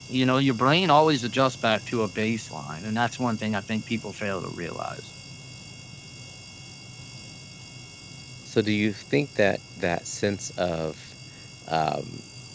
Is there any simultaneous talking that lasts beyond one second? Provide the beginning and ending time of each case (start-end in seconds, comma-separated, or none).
none